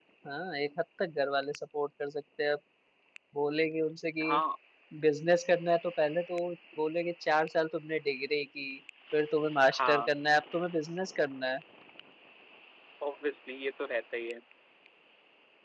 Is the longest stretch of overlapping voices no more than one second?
Yes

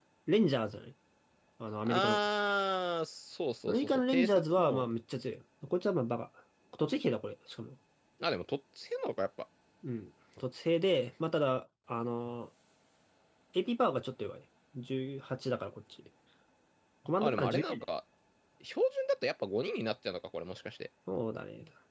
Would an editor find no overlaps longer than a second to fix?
No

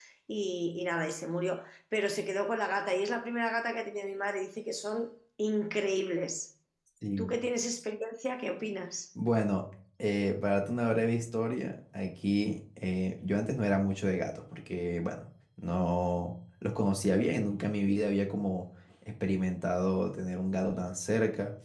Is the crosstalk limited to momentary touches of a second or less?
Yes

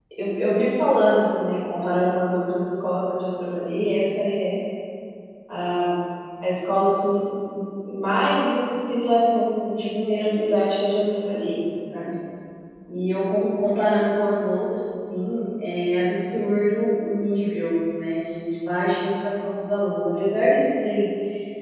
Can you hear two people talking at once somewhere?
No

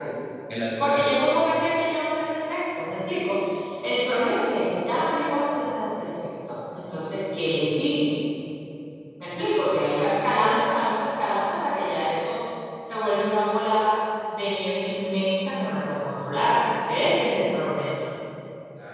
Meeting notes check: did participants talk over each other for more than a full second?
No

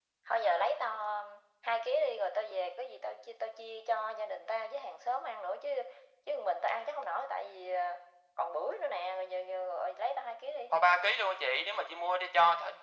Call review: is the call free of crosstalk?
Yes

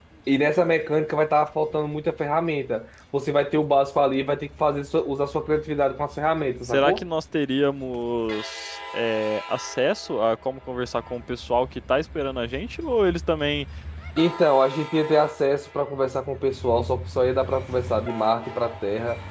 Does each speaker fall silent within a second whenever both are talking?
Yes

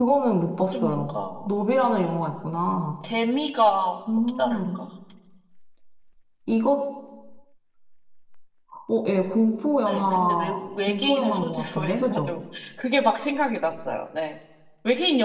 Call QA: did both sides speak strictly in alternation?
No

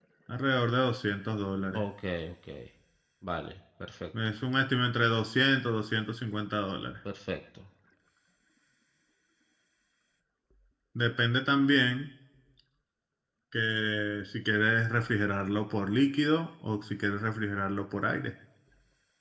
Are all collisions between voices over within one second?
Yes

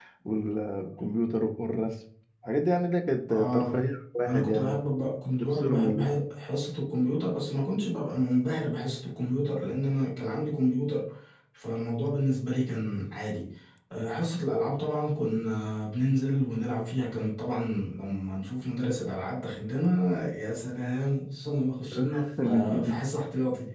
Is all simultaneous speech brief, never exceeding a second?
No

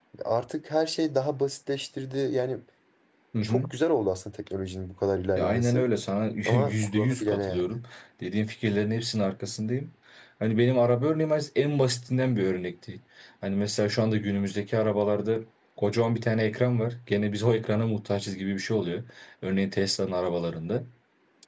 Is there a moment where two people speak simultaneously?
Yes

